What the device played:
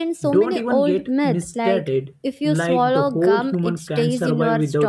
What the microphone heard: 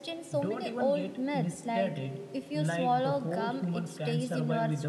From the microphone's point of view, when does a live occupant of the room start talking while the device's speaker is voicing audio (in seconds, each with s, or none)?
none